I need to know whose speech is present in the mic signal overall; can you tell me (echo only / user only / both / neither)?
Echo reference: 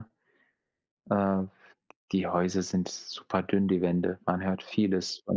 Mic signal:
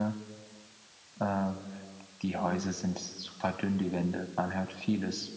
both